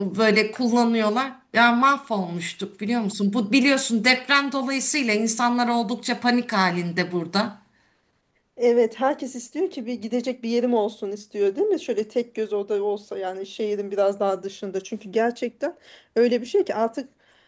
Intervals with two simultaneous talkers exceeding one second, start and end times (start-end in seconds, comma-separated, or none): none